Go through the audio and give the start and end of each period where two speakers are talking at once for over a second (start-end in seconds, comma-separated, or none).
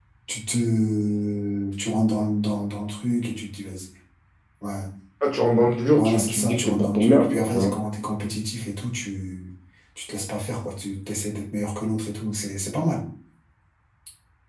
5.9-7.8